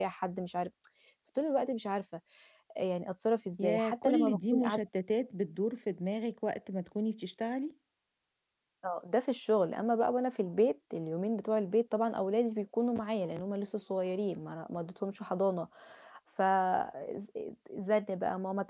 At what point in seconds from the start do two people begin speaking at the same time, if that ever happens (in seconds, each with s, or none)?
3.6 s